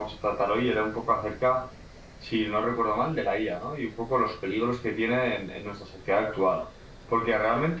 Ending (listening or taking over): listening